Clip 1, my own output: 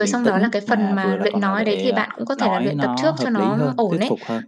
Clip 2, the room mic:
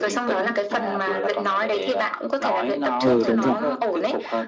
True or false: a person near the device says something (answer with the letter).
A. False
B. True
B